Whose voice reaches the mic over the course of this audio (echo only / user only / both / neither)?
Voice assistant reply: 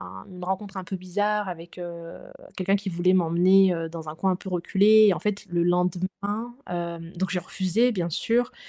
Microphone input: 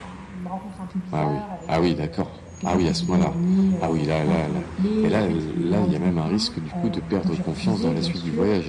both